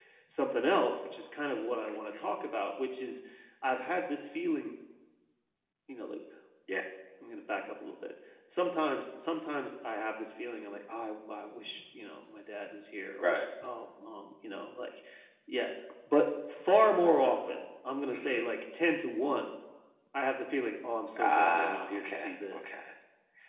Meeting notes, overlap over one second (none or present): present